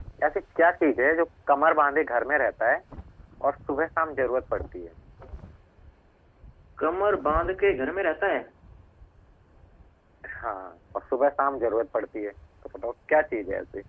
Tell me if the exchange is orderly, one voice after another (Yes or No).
Yes